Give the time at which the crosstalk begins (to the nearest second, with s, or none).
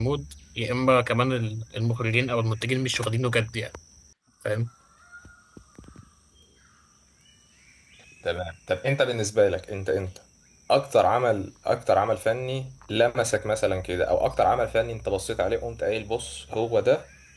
none